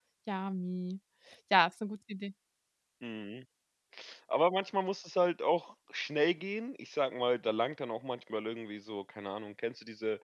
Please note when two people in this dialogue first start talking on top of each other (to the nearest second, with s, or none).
none